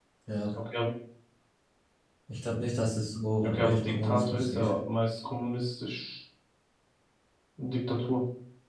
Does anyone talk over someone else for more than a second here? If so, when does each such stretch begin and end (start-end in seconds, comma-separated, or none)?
3.4-4.7